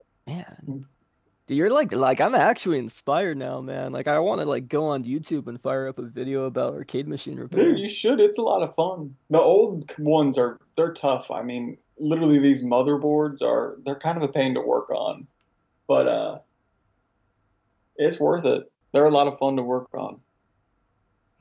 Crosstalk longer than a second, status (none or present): none